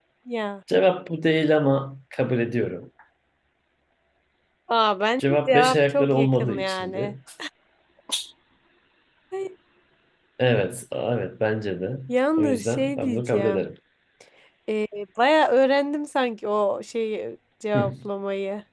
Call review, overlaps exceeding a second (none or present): present